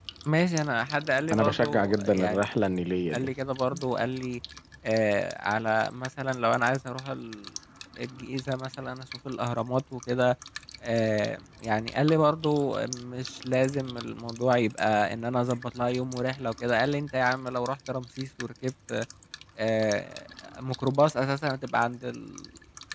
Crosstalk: present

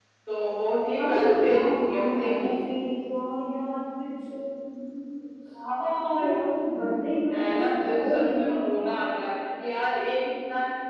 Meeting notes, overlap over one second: present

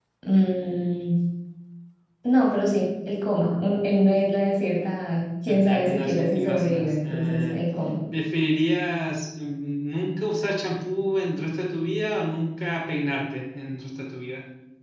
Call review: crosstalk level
present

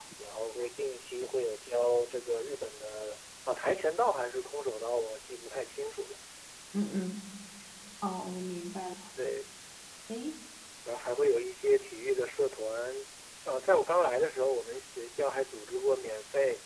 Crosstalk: none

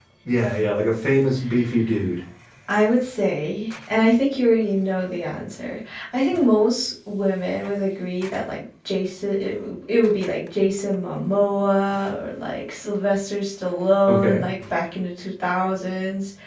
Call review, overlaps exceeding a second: none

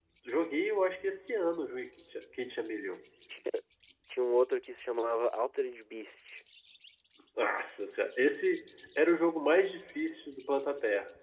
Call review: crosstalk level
none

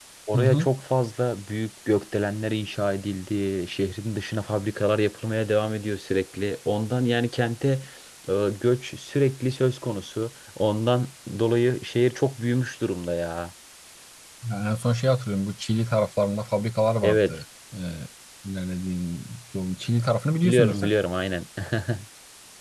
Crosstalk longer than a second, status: none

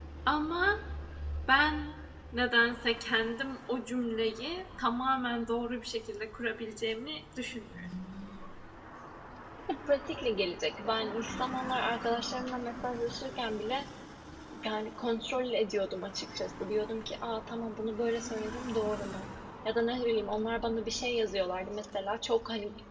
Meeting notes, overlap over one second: none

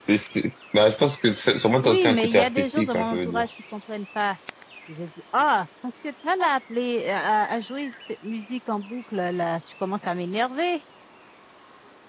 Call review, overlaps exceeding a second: present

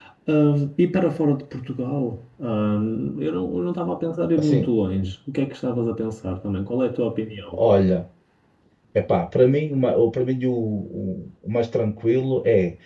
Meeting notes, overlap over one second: none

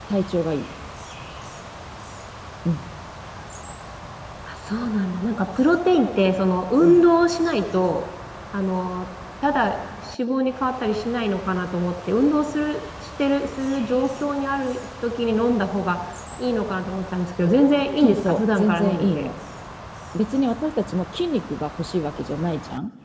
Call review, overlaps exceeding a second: present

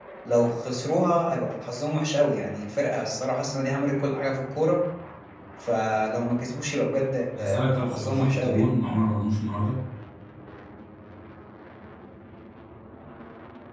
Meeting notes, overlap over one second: present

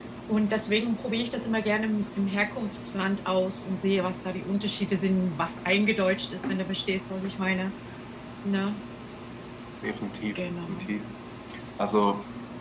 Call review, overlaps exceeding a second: none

